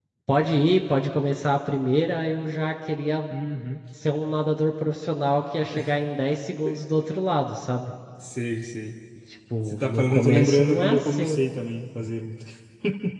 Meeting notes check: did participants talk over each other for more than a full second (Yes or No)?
Yes